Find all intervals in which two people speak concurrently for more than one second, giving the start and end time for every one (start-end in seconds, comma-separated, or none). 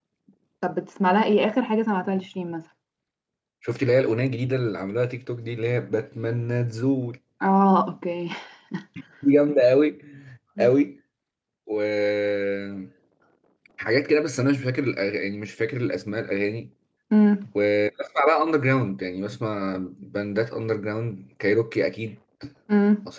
none